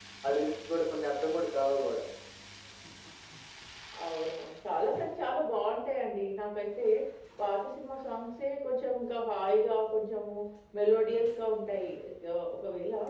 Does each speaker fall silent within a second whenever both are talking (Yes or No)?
Yes